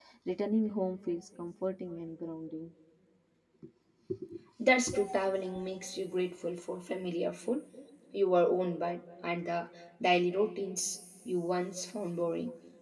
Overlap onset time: none

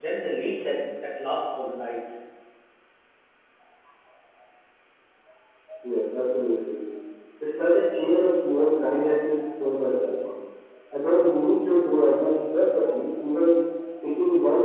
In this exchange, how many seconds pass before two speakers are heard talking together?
none

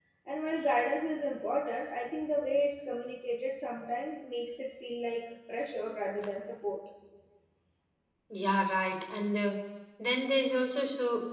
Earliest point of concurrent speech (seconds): none

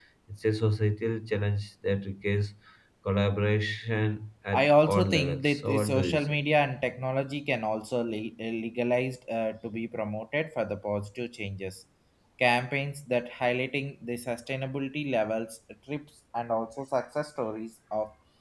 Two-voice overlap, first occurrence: 4.5 s

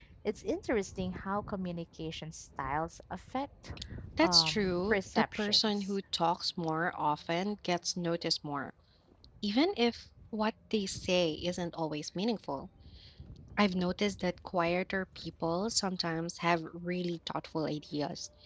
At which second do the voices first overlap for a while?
4.2 s

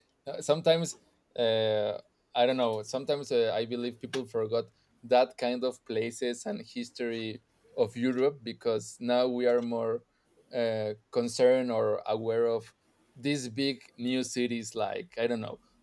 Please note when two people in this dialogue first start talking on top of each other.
none

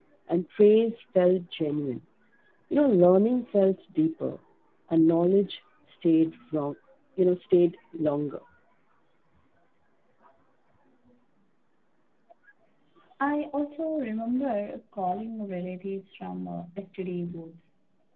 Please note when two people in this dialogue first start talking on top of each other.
none

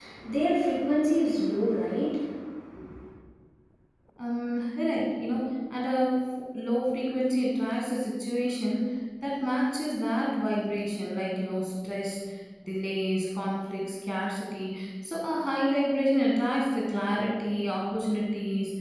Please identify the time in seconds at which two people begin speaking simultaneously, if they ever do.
none

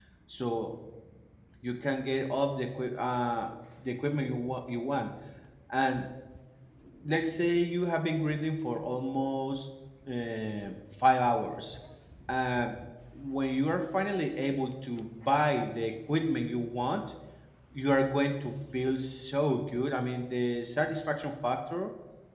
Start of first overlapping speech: none

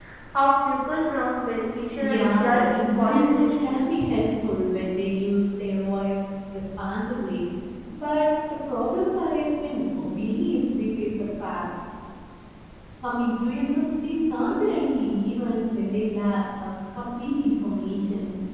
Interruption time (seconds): 2.0 s

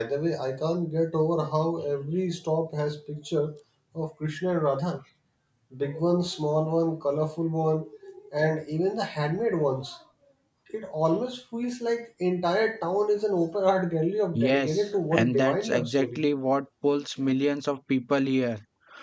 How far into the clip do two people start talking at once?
14.3 s

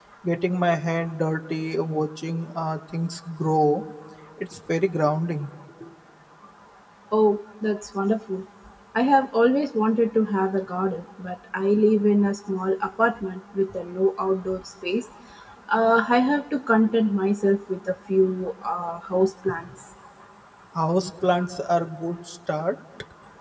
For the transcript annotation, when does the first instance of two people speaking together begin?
none

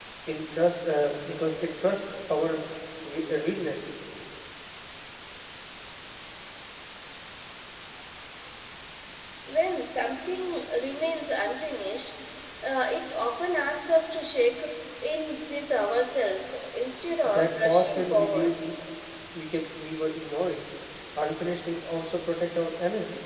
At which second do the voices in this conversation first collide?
17.2 s

